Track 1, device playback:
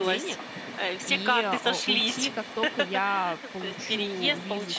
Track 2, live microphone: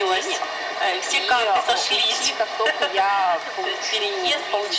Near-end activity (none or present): none